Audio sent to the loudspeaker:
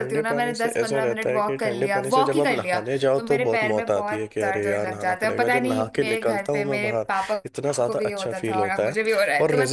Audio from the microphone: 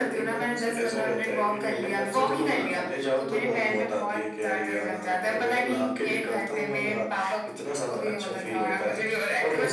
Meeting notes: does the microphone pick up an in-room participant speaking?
No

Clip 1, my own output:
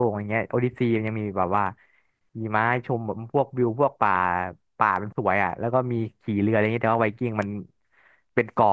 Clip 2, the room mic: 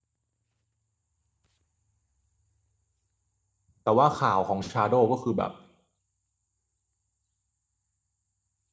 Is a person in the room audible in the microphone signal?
Yes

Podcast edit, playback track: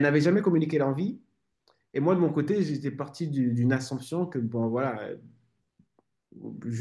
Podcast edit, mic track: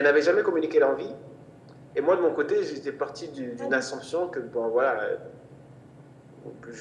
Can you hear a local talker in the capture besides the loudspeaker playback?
Yes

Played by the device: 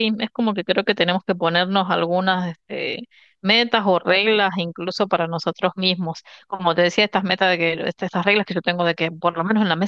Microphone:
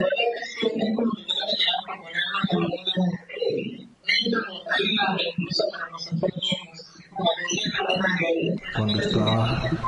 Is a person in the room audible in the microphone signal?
Yes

